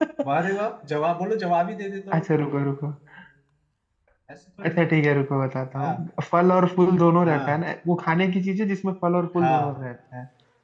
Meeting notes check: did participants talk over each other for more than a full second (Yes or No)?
No